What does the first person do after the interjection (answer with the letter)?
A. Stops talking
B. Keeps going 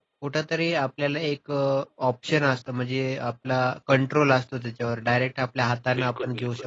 B